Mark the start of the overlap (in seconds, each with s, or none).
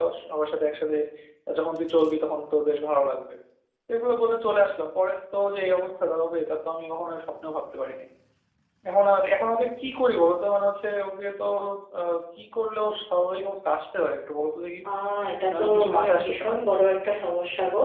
15.5 s